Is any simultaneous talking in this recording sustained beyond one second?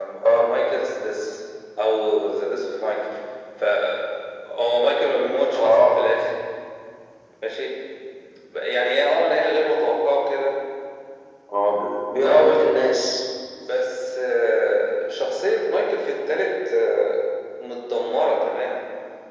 No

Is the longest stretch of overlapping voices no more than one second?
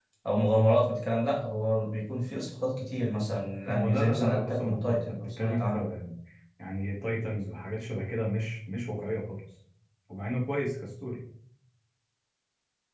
No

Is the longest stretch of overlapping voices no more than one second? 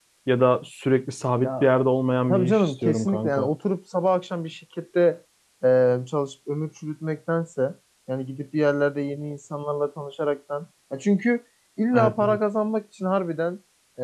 No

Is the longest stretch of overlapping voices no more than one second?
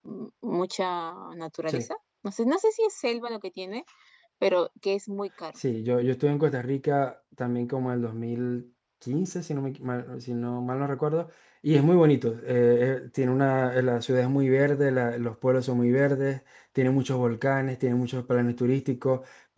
Yes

